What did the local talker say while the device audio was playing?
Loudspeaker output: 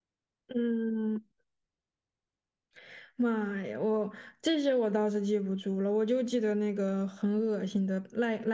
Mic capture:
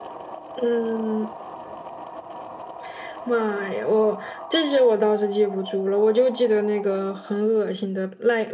none

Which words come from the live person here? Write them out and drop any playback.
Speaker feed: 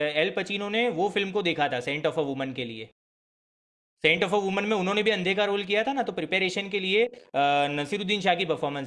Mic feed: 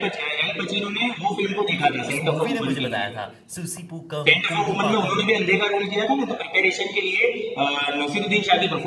उस उस मूवी ने मुझे बताया था सुसीपुकम कुंभी पाकम

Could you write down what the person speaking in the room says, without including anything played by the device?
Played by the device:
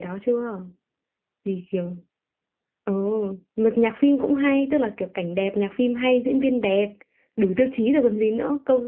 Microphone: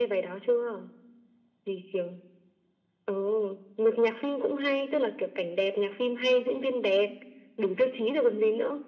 none

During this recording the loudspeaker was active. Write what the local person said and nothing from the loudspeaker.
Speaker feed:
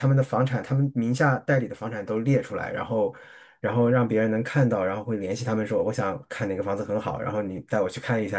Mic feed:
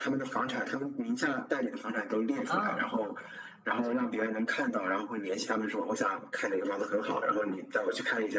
啊，了解，

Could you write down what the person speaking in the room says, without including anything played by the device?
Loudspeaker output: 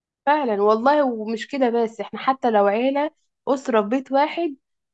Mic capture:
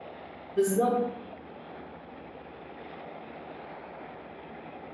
بالظبط

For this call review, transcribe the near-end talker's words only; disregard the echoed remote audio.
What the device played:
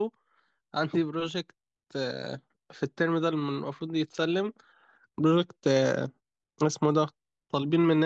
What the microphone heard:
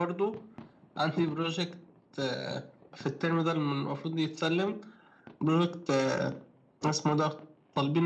none

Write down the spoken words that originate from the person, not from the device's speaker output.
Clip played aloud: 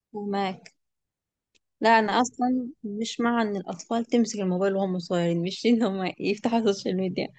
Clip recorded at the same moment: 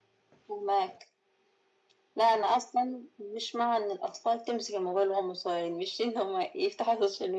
none

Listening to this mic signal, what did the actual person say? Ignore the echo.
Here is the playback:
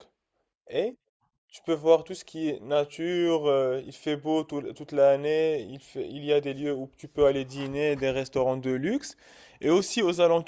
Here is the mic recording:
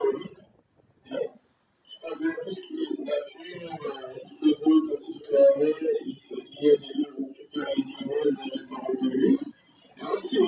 none

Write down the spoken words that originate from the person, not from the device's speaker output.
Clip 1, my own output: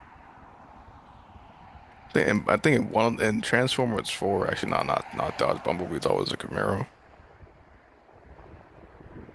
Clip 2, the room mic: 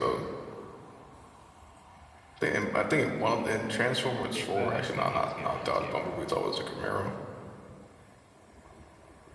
Yeah, I, I was thinking it was Gabriel. It's Gabriel.

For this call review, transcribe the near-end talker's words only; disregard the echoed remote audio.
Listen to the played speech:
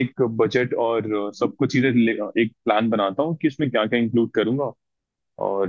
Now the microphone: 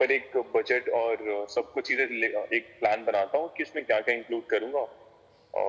none

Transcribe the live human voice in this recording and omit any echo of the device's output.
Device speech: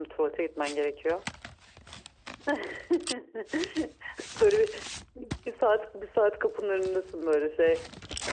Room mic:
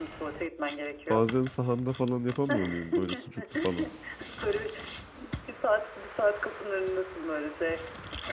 bazen sahanda falan yapamıyor muyum böyle sucuklu falan?

